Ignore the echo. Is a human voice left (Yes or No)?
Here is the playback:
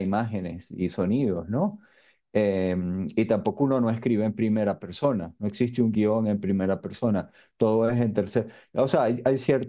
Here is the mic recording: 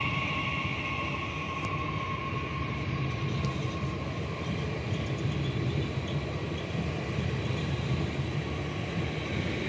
No